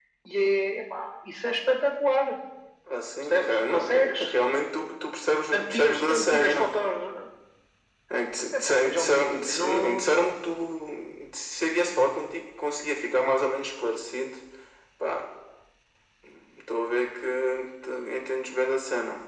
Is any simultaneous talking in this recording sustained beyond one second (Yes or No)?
Yes